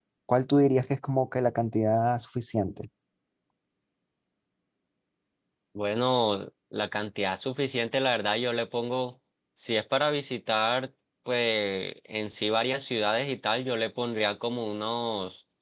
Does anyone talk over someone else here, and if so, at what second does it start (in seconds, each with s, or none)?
none